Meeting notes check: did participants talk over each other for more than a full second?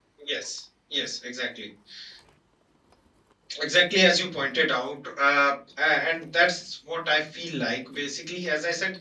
No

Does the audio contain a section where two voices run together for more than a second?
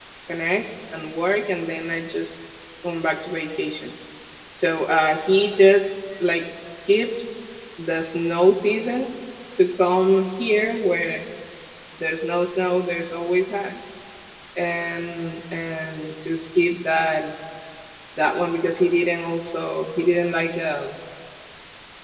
No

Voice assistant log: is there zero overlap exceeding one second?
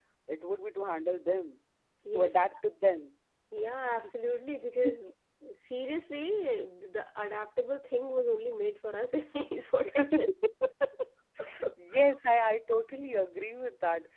Yes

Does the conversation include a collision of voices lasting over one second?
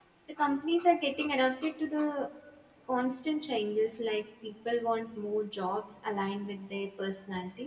No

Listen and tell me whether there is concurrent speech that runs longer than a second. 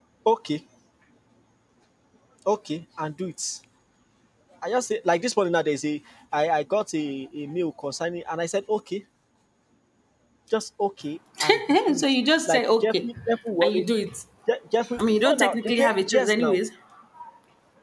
Yes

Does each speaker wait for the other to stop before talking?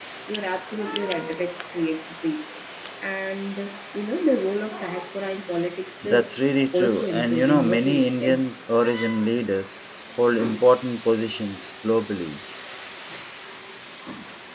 No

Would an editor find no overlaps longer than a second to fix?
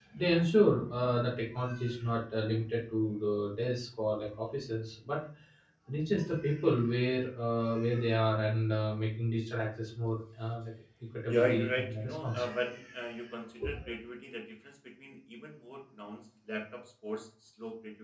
No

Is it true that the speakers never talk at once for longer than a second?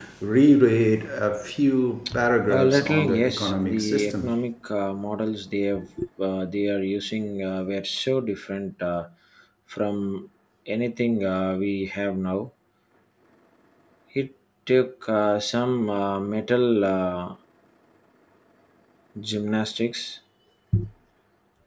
No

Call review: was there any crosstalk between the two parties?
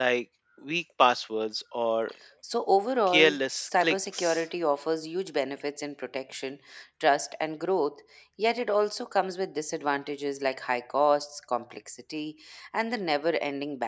Yes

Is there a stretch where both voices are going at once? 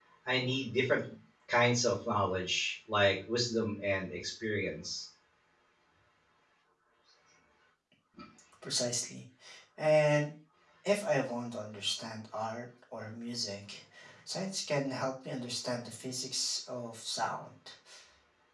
No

